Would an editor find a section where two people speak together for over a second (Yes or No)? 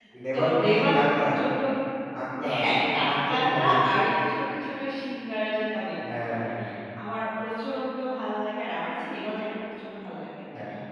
Yes